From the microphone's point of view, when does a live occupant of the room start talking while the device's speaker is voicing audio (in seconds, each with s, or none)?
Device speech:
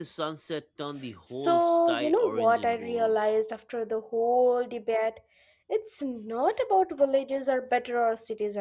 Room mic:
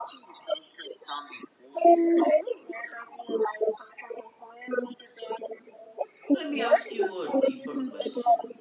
6.3 s